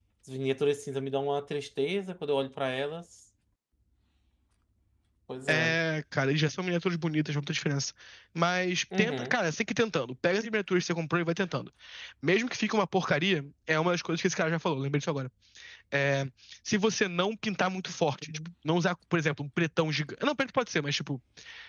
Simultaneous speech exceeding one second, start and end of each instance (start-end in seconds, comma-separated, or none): none